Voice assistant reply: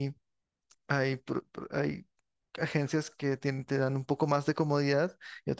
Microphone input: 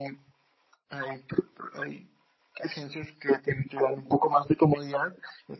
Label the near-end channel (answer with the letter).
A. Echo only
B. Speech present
A